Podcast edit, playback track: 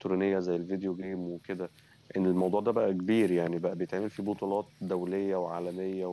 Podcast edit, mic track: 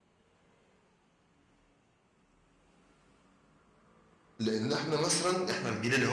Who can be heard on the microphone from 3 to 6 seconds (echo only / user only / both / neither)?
user only